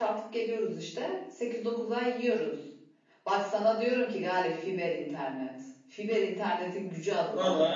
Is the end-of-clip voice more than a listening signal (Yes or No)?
Yes